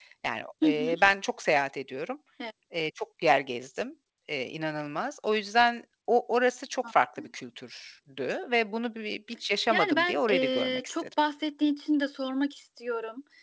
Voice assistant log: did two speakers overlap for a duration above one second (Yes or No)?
Yes